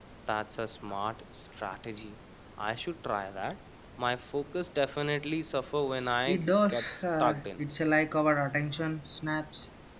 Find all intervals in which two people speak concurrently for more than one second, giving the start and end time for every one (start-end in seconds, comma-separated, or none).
6.3-7.6